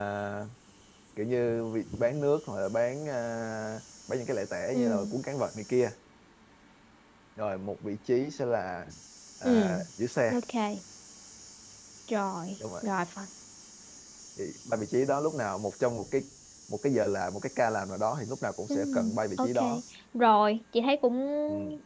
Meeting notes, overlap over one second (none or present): none